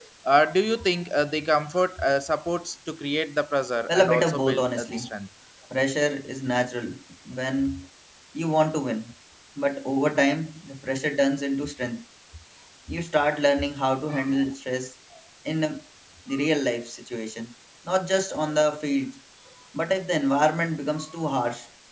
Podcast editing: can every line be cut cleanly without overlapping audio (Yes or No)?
No